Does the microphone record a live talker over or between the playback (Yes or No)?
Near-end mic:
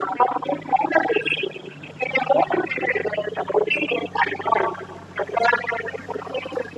No